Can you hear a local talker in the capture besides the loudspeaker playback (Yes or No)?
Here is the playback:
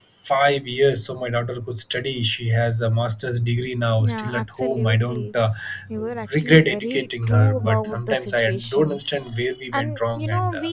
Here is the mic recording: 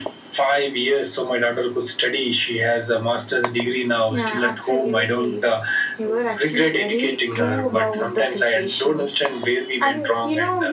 No